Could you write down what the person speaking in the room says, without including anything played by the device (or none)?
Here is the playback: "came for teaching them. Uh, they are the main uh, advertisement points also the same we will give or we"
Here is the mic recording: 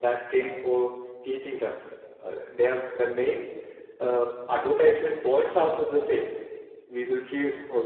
none